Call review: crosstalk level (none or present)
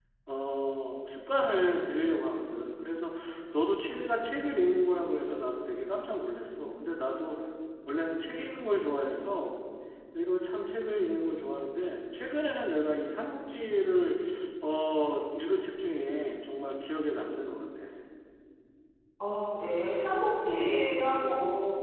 none